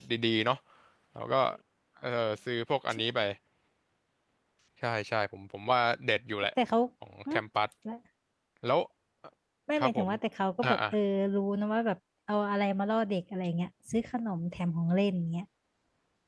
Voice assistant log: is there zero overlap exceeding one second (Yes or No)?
Yes